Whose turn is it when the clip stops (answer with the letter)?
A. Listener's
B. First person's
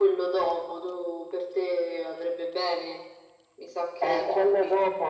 A